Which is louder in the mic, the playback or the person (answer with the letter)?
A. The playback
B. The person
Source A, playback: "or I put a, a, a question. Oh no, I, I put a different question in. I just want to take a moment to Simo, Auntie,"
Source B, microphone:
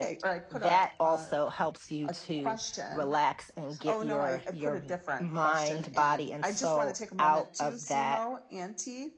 B